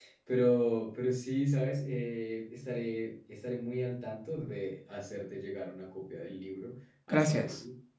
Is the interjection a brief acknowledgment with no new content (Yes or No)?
Yes